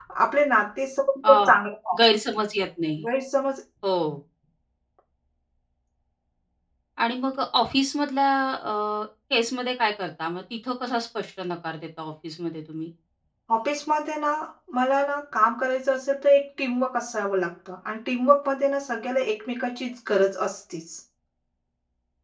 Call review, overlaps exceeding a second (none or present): none